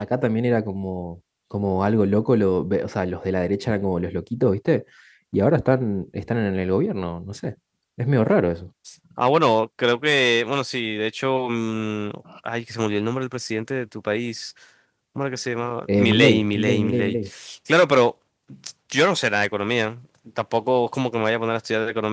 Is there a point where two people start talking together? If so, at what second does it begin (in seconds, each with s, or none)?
15.9 s